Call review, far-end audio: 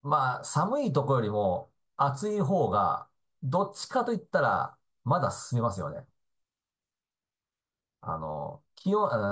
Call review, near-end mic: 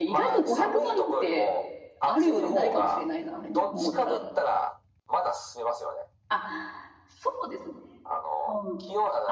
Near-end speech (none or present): present